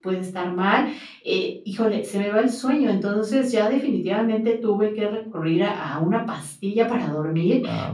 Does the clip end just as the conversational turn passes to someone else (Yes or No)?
No